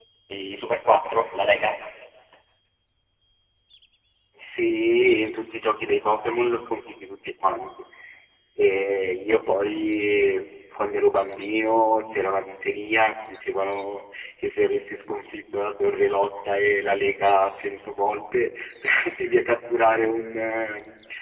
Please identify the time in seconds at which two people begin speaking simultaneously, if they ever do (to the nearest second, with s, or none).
none